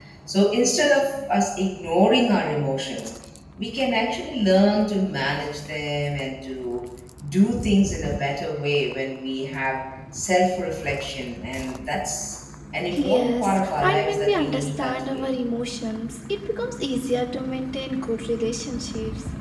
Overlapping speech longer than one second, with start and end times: 12.9-15.2

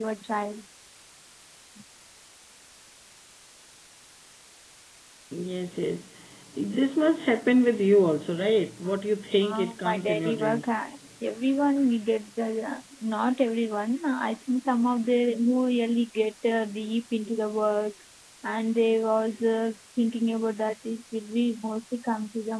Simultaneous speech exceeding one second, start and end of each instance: 9.4-10.7

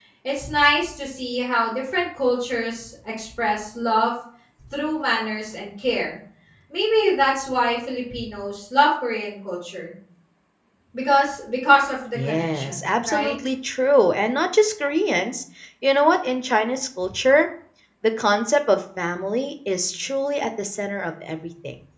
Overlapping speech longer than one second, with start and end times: 12.2-13.3

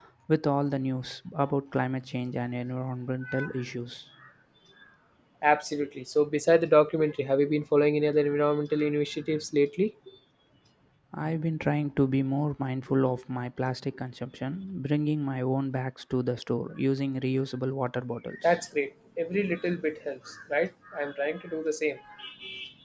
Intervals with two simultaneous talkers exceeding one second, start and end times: none

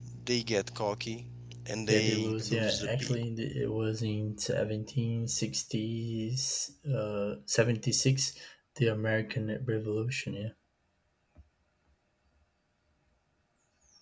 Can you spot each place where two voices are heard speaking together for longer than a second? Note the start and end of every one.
1.9-3.2

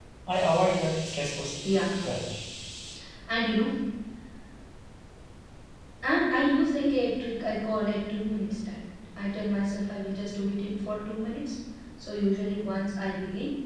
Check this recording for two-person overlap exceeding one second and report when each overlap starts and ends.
none

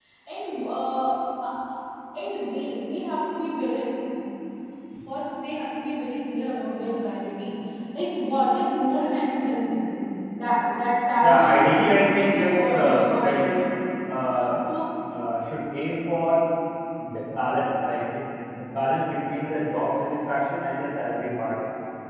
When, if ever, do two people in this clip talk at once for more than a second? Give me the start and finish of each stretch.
11.2-13.6

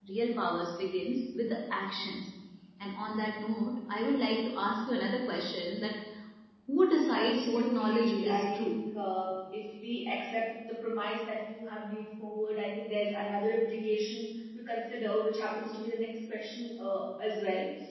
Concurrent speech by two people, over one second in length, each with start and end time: 7.2-8.7

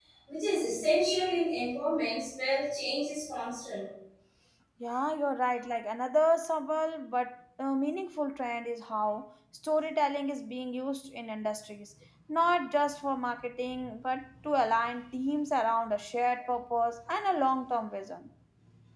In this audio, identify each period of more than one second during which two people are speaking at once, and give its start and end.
none

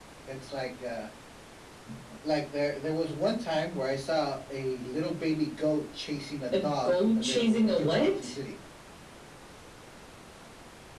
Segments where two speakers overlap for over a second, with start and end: 6.6-8.3

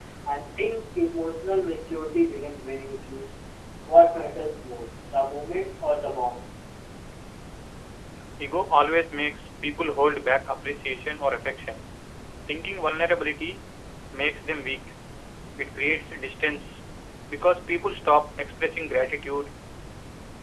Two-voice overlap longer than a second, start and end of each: none

